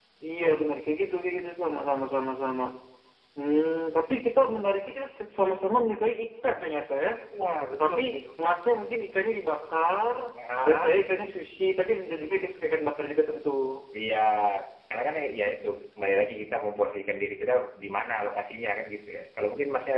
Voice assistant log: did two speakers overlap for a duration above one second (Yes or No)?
No